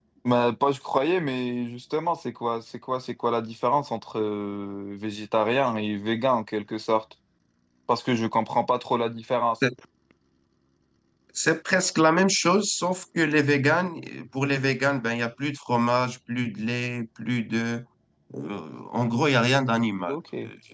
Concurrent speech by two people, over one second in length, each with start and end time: none

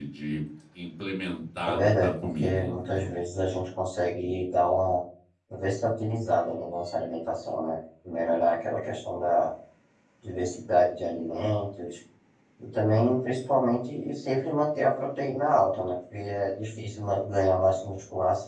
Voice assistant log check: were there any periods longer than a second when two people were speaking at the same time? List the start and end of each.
1.7-3.1

